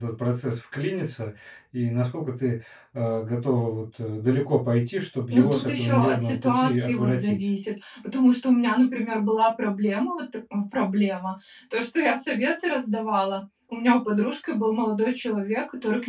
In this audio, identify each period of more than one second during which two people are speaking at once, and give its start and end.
5.3-7.4

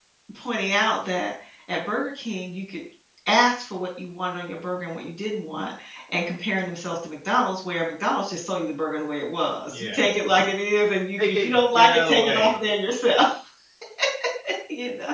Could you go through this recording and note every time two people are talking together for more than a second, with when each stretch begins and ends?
11.2-12.6

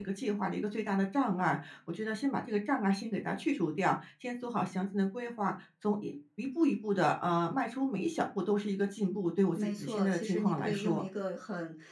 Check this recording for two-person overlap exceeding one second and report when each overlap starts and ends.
9.6-11.1

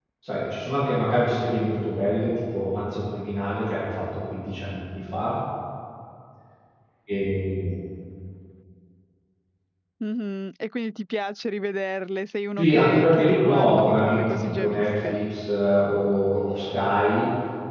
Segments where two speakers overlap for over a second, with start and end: 12.6-15.2

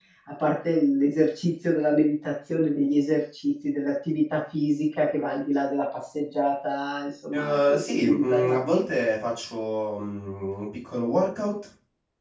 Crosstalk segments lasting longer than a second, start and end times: 7.3-8.8

